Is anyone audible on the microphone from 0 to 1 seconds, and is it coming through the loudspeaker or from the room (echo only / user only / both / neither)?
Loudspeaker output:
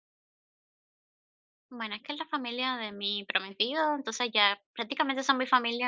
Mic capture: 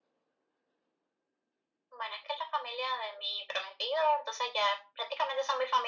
neither